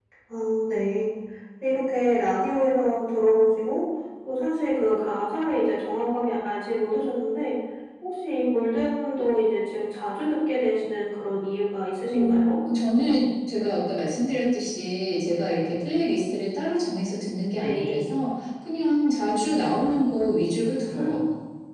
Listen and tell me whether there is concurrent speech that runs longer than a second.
No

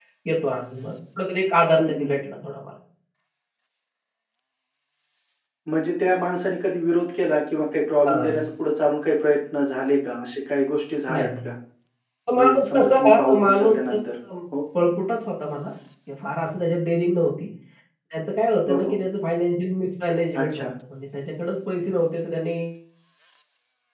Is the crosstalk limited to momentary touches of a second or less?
No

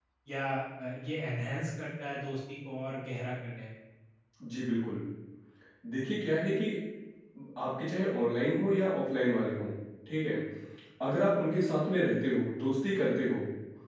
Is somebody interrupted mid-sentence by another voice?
No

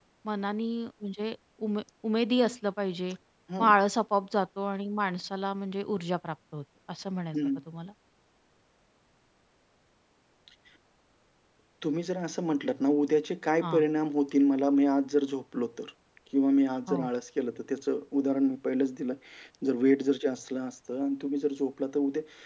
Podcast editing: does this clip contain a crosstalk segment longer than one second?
No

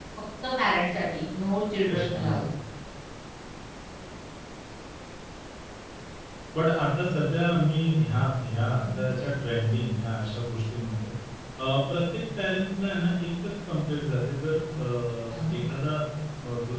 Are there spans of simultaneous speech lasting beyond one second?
No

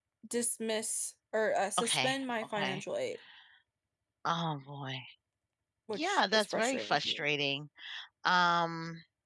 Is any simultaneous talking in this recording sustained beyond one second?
Yes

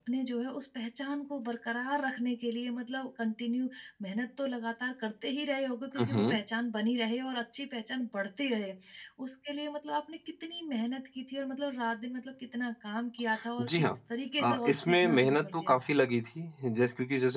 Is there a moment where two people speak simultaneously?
Yes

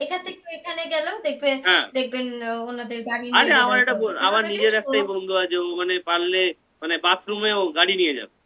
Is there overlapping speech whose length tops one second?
Yes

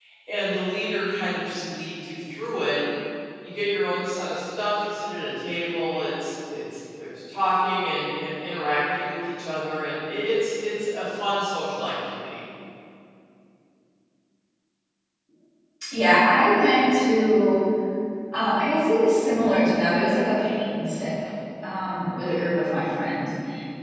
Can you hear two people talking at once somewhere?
No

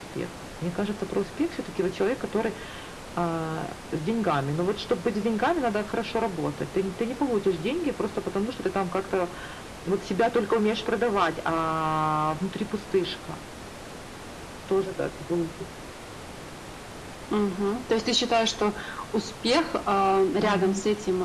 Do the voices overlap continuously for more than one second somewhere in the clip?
No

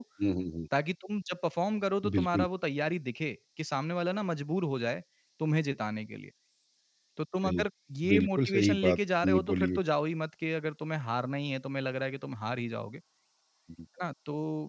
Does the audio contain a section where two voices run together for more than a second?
Yes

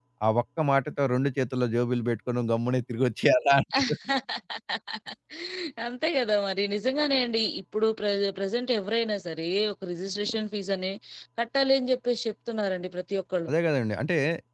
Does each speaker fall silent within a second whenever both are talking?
Yes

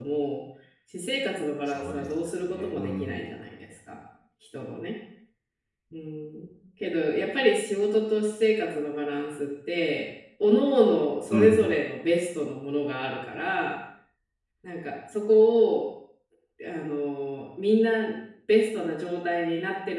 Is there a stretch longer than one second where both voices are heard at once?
Yes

